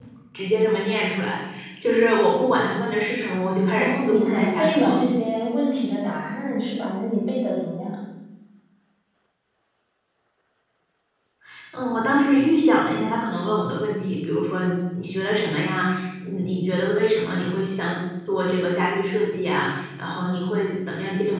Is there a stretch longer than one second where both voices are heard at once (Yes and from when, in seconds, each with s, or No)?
Yes, from 3.8 s